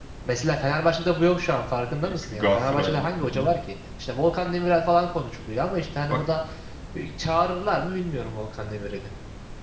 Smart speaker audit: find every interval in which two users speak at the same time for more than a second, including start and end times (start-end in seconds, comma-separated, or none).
2.0-3.5